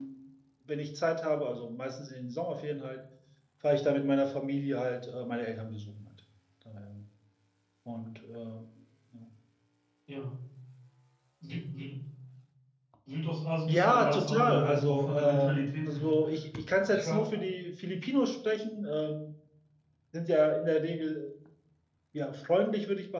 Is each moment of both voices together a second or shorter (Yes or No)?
No